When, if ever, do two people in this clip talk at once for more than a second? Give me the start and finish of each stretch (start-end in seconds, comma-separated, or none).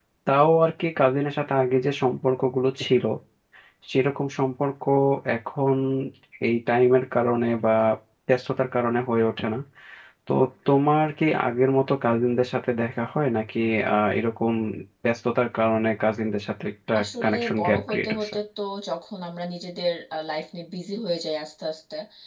17.0-18.3